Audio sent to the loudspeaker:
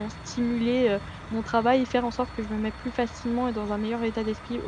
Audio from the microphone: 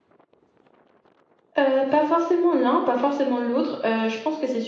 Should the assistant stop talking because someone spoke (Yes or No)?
Yes